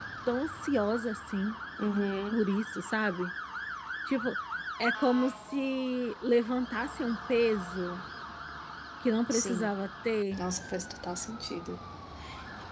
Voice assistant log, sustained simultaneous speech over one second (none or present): none